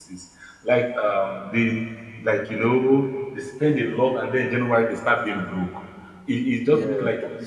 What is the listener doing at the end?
listening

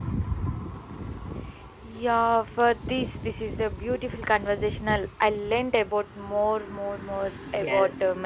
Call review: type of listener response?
taking over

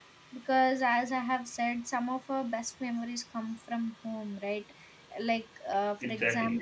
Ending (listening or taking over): listening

